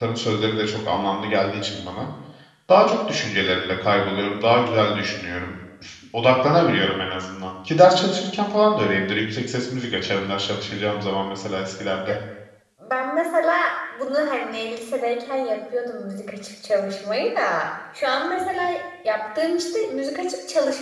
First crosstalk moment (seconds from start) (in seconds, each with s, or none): none